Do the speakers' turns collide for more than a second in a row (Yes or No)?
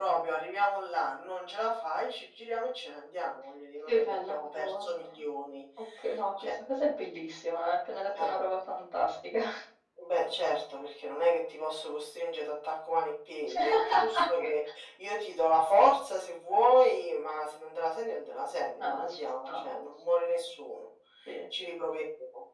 Yes